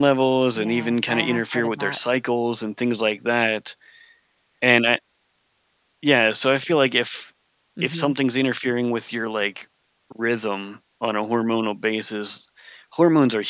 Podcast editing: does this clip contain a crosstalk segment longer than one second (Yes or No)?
Yes